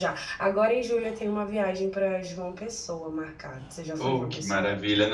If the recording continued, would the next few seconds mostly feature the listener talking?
Yes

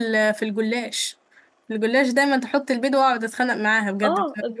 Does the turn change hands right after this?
Yes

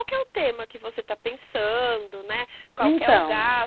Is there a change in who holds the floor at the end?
No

